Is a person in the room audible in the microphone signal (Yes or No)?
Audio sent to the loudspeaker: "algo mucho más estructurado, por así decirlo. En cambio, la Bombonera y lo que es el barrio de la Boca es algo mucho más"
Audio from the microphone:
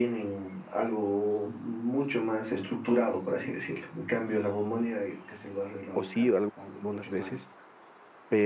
Yes